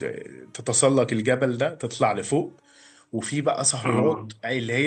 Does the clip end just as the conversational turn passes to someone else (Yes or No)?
No